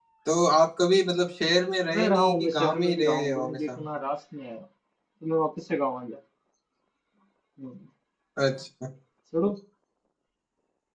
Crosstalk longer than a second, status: present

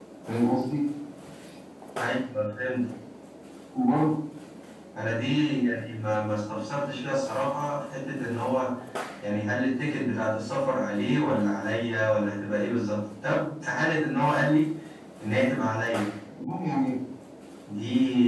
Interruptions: none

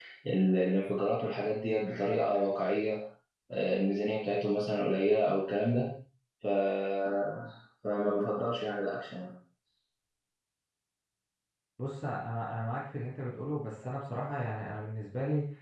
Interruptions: none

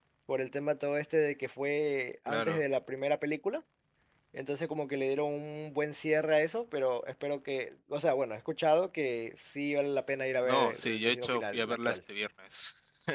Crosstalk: present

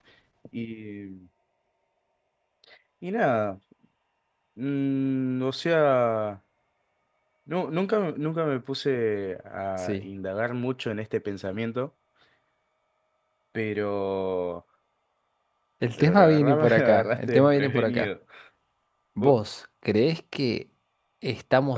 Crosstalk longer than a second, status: present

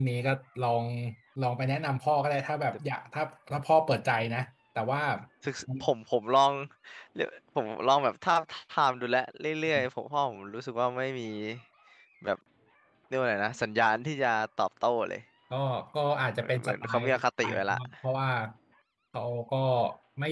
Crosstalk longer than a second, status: present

